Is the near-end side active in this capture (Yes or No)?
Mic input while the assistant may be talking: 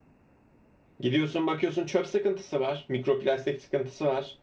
Yes